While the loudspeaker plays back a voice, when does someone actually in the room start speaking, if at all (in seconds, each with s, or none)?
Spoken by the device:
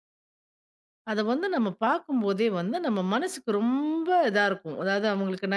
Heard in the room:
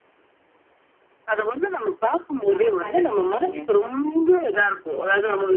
2.5 s